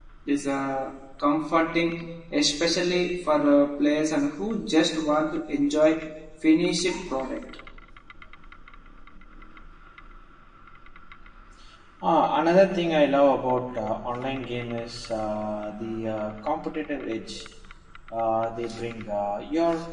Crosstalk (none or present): none